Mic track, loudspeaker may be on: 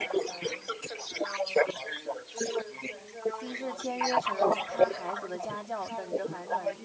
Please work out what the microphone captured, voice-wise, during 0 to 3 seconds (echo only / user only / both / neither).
echo only